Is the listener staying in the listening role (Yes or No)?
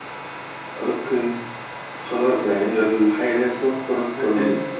No